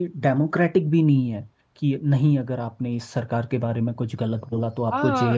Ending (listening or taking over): taking over